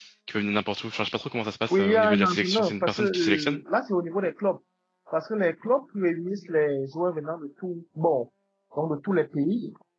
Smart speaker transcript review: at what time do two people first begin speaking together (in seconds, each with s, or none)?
1.7 s